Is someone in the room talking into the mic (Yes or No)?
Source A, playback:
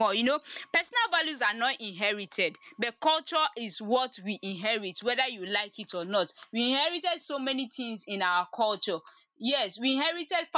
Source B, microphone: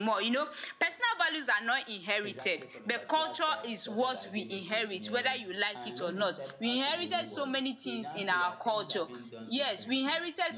Yes